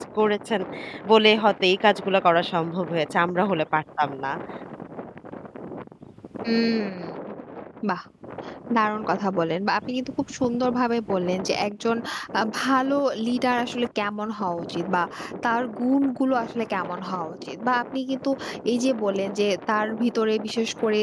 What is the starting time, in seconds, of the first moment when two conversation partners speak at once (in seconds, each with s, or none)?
none